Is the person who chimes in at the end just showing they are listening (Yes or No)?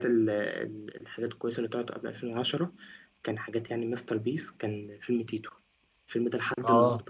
Yes